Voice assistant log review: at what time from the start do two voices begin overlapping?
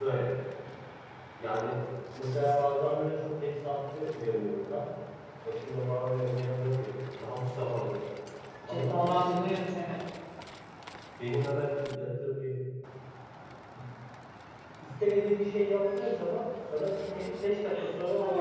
8.7 s

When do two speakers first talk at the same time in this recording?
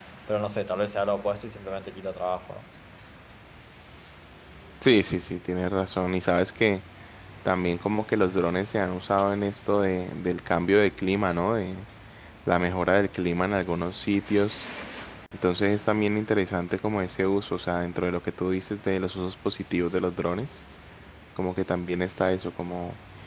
none

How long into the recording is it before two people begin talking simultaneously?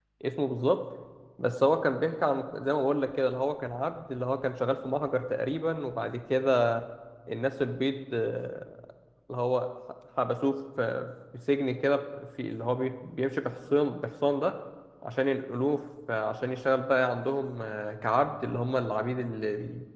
none

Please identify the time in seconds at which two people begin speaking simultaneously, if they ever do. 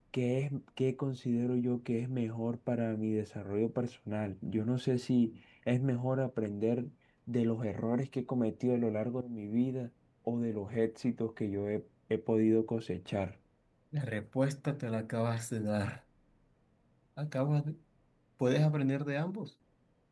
none

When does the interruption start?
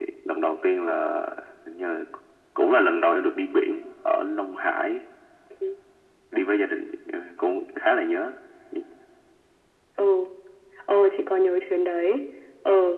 none

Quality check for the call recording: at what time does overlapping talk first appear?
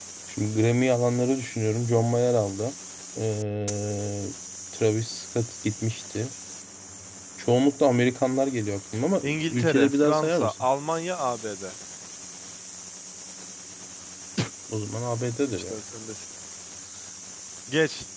9.2 s

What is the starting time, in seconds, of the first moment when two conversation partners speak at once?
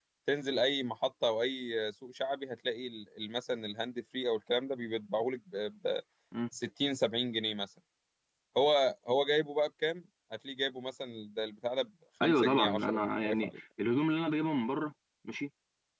12.2 s

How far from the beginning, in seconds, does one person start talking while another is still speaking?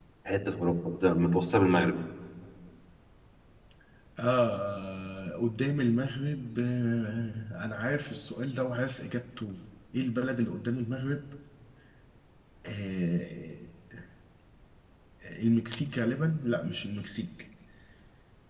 none

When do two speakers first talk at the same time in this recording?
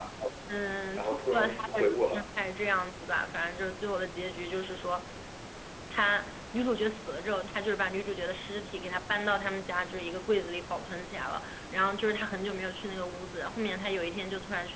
1.0 s

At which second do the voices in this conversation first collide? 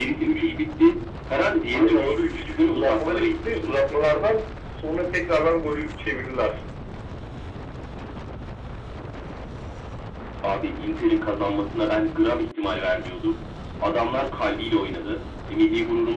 1.7 s

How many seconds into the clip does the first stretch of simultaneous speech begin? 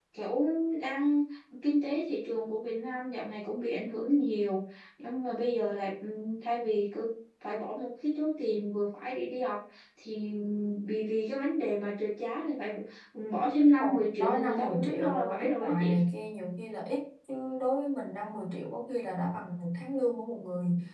13.8 s

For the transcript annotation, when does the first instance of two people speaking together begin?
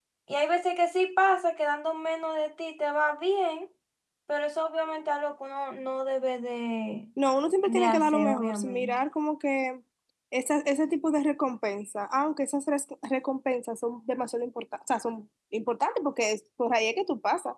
7.7 s

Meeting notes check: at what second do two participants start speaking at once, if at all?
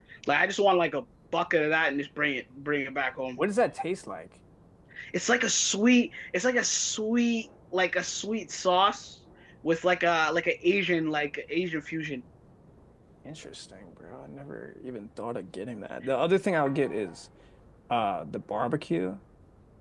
none

